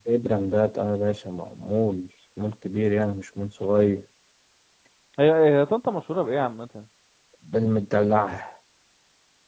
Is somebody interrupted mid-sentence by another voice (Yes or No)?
No